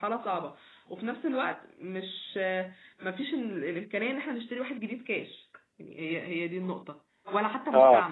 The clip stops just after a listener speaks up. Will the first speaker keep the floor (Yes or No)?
Yes